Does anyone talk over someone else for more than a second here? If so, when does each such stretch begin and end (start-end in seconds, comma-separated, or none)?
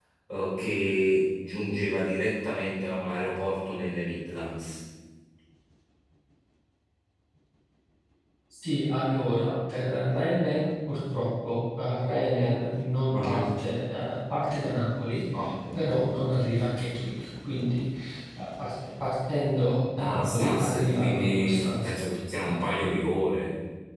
20.0-22.9